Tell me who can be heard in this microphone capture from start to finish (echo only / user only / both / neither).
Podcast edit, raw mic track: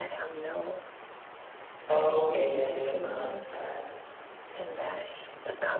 both